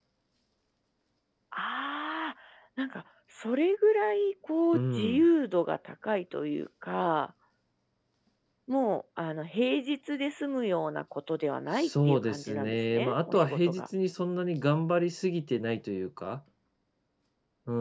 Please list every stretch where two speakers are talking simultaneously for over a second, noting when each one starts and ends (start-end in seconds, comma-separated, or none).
11.7-13.8